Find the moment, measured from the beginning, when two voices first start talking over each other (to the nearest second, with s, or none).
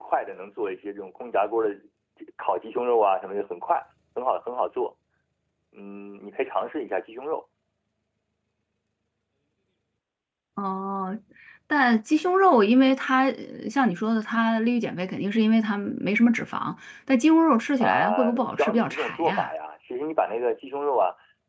18 s